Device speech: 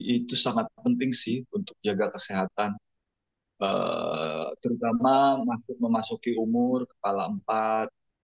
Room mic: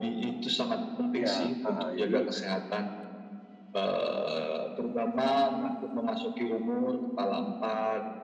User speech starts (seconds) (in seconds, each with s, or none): 1.2 s